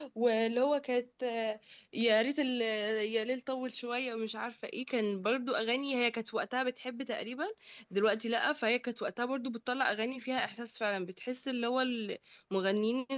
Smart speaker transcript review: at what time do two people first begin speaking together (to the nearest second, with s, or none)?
none